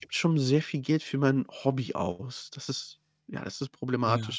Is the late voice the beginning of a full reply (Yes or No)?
Yes